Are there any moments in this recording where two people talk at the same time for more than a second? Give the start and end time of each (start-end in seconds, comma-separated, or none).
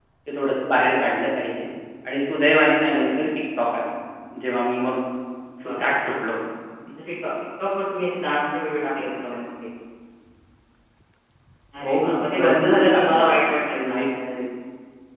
11.8-13.2